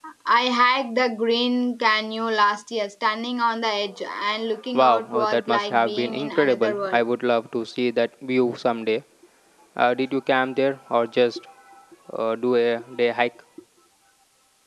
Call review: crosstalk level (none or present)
present